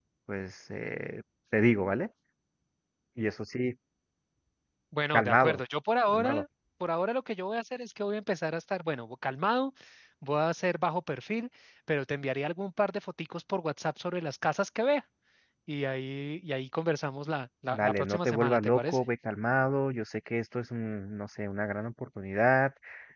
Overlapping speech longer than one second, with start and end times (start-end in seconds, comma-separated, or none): 17.7-19.0